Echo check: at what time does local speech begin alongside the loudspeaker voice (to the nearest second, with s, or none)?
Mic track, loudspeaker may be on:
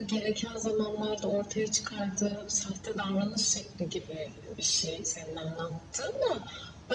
none